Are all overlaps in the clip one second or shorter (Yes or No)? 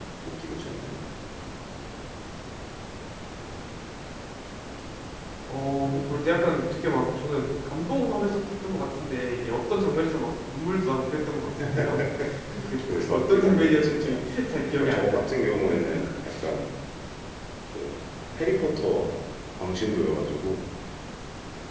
No